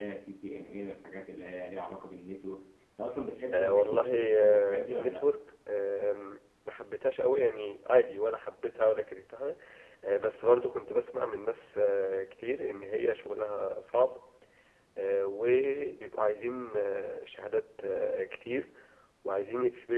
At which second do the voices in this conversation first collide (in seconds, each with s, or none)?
3.5 s